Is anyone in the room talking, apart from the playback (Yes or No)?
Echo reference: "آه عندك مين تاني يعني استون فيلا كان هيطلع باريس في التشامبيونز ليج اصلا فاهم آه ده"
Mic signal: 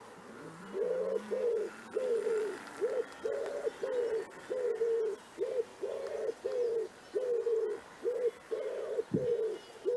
No